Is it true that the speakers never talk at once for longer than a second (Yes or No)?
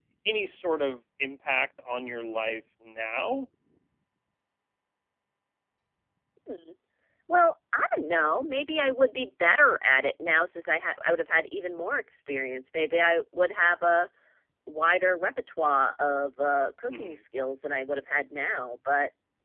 Yes